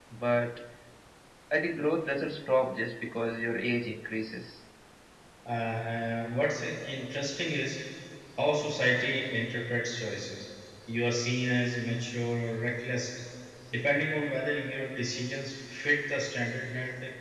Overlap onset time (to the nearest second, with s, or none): none